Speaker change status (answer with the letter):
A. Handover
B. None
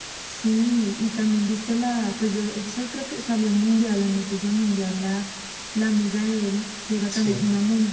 B